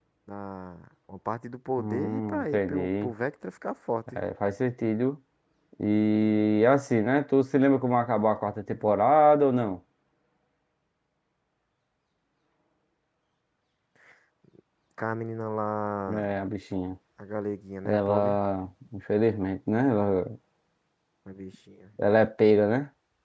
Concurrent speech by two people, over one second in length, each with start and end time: 1.8-3.1

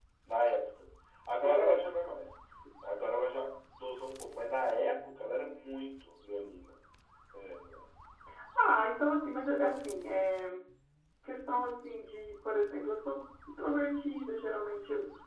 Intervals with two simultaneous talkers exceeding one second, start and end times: none

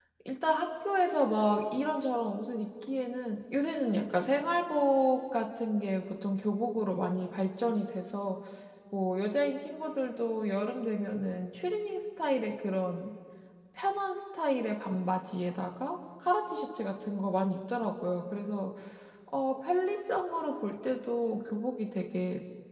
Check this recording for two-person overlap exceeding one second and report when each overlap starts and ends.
none

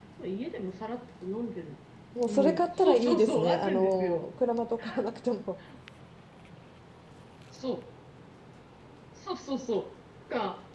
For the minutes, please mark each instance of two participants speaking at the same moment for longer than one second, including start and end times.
2.2-4.2

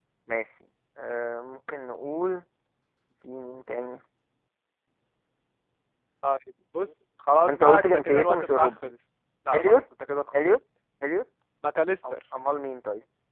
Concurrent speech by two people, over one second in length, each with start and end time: 7.5-8.9

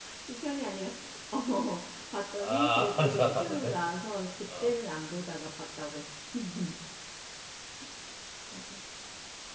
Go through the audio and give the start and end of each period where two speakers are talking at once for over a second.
2.4-3.7

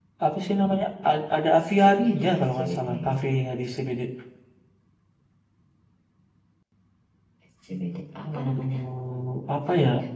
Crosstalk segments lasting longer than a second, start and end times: 1.8-3.2

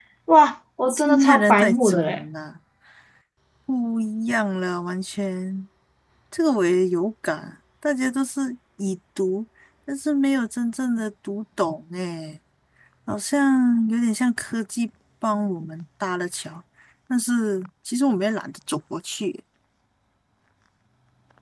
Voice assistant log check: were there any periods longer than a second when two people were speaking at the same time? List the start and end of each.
0.9-2.2

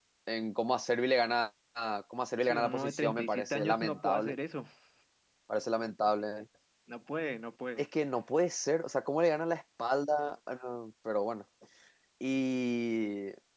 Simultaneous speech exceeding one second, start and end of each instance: 2.4-4.3

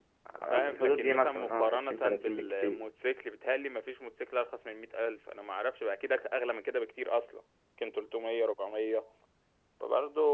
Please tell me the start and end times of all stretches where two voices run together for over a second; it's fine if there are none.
0.5-2.8

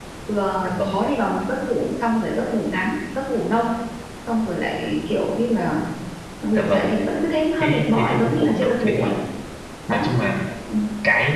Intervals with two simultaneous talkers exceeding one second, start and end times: 7.6-9.1

